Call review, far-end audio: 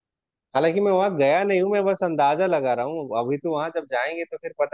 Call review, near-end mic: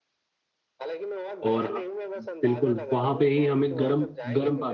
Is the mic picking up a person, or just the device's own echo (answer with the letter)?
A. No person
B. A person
B